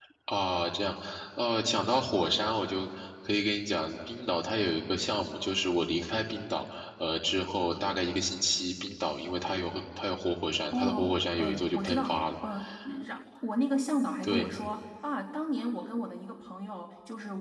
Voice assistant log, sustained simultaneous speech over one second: present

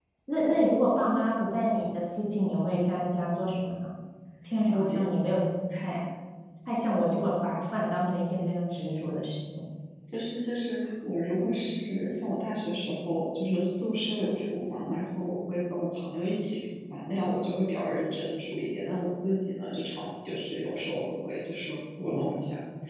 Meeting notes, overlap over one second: none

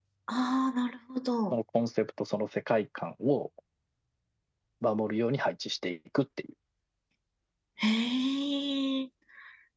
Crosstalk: none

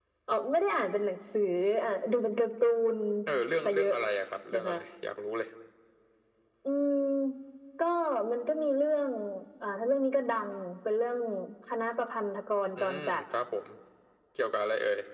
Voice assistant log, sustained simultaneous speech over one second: none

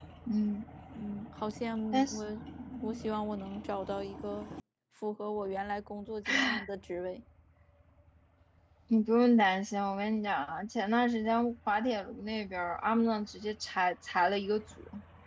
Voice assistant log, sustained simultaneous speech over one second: none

